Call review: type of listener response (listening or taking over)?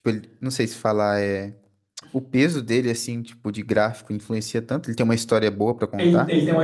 taking over